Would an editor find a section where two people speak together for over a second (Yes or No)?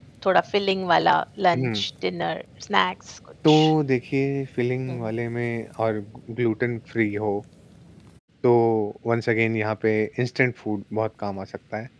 No